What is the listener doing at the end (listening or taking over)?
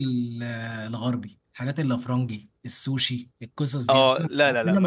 taking over